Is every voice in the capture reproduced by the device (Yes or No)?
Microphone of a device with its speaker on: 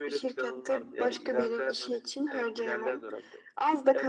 Yes